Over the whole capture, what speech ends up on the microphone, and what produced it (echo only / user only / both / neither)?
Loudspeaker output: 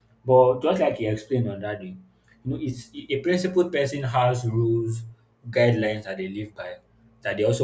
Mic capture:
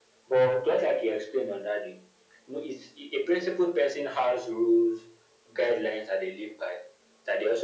echo only